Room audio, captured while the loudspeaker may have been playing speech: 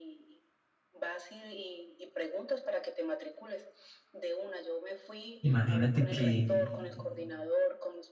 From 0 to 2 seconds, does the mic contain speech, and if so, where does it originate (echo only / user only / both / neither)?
echo only